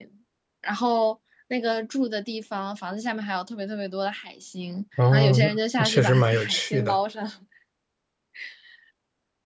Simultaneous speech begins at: 5 s

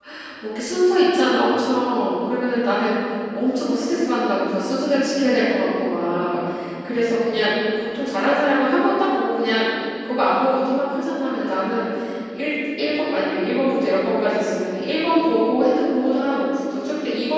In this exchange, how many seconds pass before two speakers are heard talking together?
none

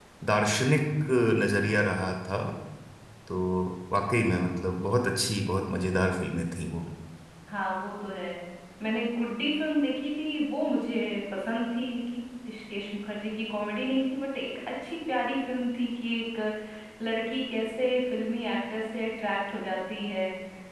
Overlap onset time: none

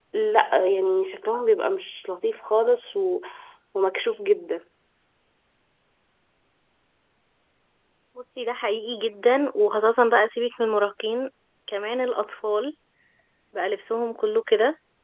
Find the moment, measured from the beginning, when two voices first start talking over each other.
none

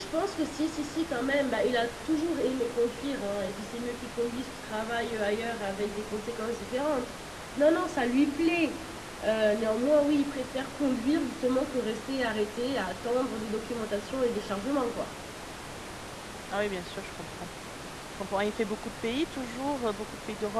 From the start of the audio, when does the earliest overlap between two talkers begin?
none

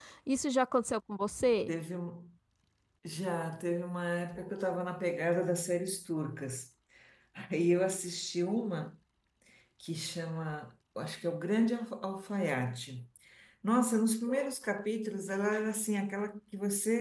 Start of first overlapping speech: none

